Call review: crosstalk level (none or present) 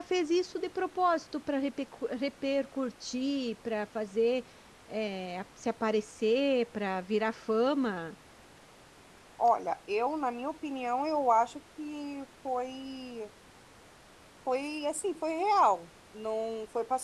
none